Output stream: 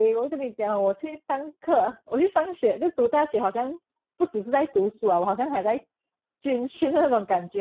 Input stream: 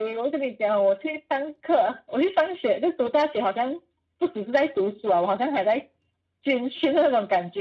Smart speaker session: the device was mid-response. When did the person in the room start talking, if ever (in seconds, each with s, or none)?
none